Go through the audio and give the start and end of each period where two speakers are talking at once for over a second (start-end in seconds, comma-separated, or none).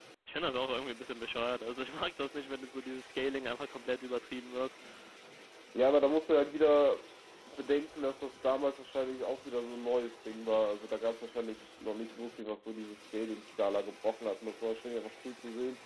none